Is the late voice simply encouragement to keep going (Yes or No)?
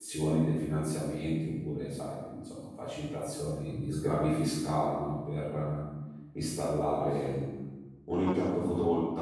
Yes